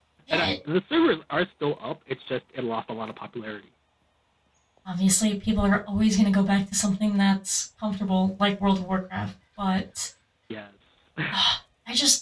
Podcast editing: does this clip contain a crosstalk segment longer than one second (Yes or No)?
No